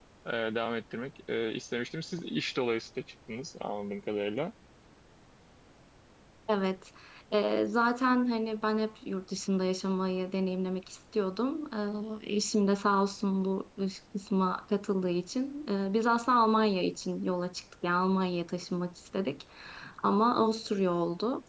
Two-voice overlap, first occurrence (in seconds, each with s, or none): none